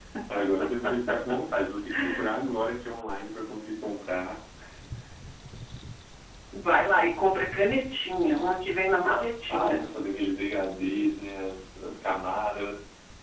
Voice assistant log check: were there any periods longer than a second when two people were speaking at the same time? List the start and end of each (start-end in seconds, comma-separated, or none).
none